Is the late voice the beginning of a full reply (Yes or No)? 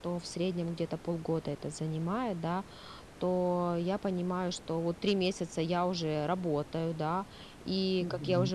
No